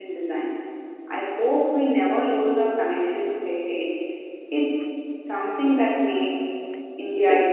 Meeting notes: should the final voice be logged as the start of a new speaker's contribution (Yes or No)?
Yes